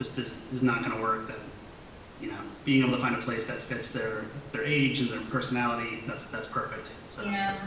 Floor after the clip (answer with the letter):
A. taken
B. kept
A